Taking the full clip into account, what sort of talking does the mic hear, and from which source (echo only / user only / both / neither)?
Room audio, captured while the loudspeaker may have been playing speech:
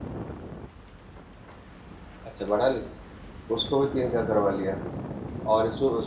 user only